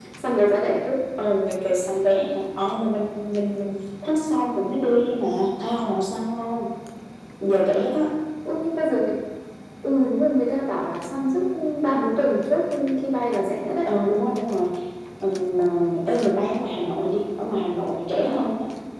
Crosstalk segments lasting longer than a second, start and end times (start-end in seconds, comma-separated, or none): none